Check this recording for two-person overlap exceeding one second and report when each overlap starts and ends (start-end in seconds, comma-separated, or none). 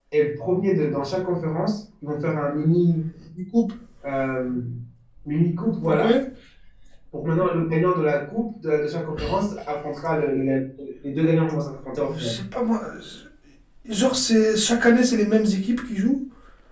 none